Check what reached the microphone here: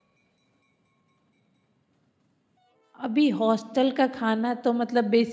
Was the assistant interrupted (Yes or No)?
Yes